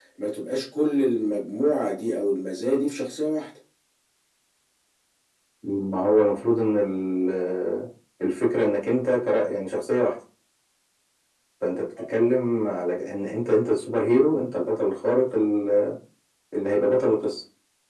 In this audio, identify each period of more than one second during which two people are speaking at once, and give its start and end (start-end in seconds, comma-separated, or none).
none